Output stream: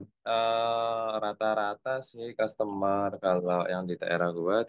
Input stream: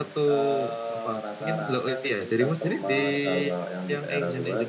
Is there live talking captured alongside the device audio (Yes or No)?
Yes